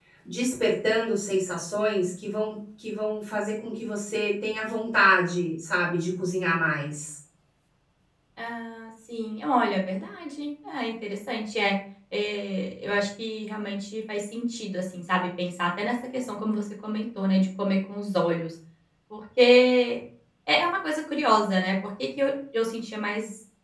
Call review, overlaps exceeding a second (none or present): none